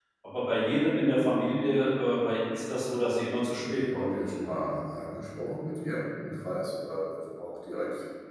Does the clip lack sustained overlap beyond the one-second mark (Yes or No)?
Yes